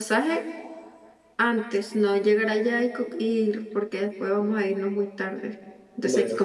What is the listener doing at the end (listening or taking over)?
listening